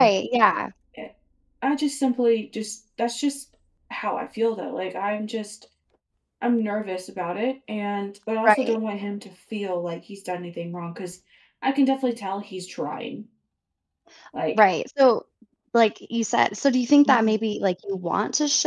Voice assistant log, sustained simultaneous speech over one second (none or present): none